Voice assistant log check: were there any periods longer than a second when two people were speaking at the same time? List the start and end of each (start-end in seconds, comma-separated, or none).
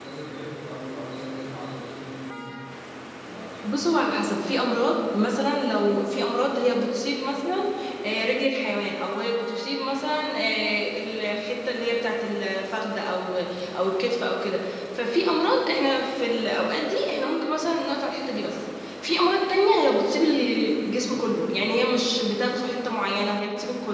none